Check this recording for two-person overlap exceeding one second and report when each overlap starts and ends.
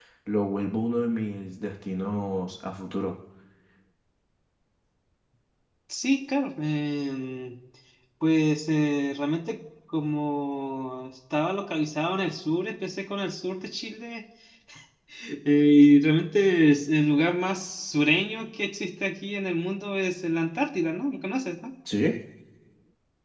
none

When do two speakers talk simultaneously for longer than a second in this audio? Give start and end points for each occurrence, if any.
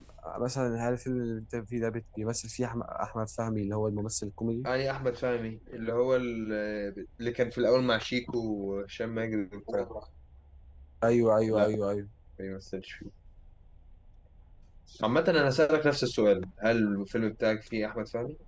none

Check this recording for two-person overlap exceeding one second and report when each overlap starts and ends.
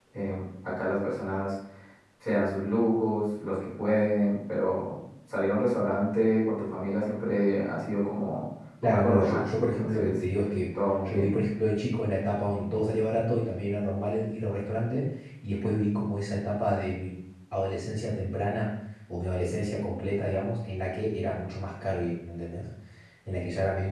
8.8-10.2

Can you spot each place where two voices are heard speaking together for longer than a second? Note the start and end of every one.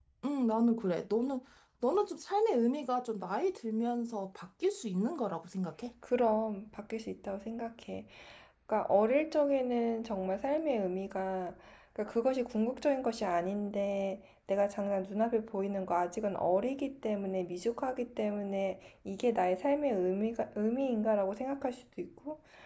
none

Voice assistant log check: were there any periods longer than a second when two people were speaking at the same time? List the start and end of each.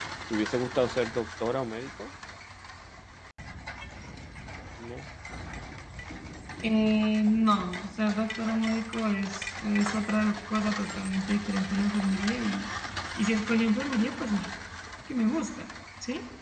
none

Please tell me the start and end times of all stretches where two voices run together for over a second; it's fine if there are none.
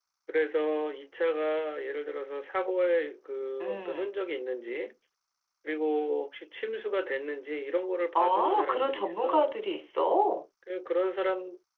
8.2-9.5

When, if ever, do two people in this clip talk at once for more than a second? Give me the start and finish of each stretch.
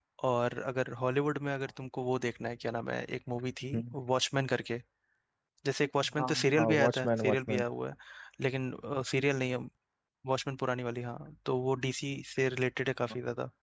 6.2-7.6

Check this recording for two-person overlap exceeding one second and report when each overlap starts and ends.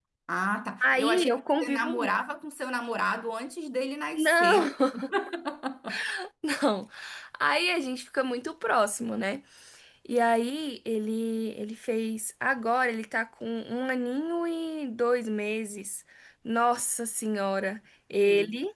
0.8-2.1

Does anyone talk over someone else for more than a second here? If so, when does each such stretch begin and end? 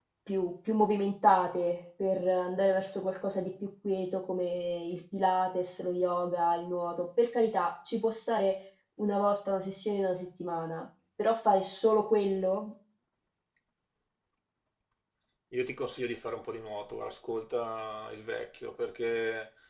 none

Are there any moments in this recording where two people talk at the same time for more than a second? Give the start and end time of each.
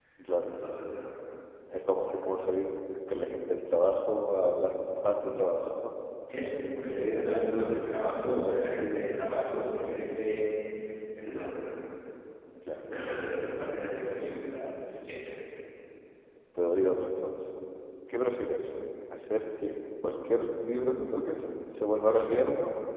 none

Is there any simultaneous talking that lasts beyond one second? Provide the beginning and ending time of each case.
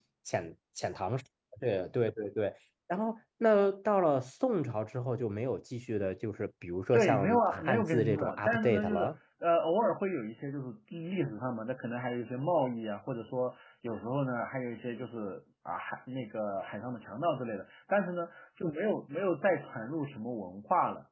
6.9-9.1

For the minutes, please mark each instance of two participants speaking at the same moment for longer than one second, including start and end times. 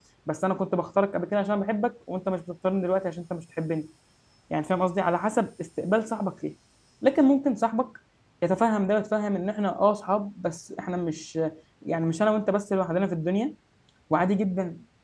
none

